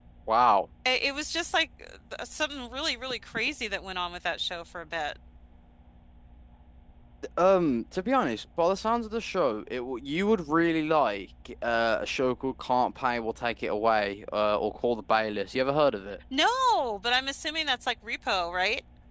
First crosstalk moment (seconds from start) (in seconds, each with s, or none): none